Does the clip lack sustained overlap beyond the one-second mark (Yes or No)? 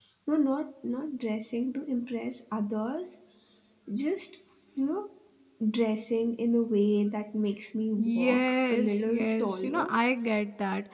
No